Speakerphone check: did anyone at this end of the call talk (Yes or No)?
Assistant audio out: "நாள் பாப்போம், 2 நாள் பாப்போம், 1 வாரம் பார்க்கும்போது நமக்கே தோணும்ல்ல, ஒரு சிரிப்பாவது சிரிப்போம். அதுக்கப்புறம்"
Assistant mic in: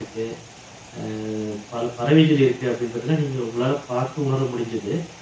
Yes